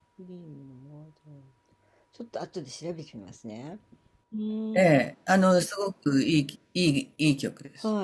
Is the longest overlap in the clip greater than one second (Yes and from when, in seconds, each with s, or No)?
No